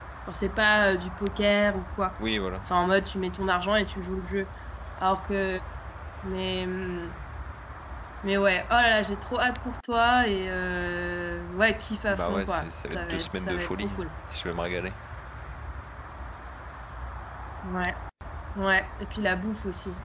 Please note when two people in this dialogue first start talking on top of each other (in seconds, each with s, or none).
12.1 s